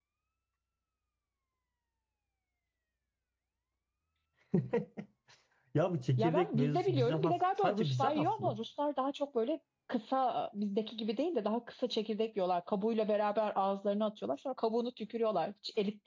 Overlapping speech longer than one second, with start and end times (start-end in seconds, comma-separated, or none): 6.2-8.6